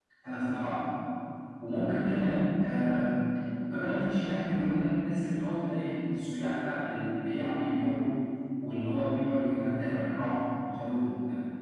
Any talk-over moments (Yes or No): No